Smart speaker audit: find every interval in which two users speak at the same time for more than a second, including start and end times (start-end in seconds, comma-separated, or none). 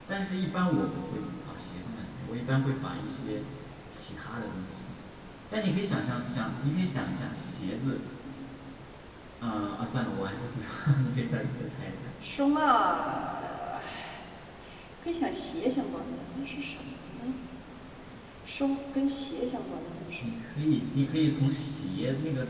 none